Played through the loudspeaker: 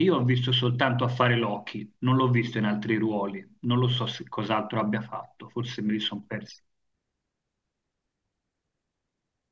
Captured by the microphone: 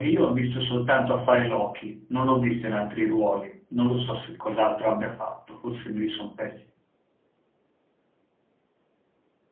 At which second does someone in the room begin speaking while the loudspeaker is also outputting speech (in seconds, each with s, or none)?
none